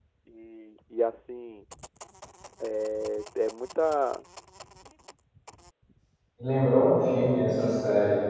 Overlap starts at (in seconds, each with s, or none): none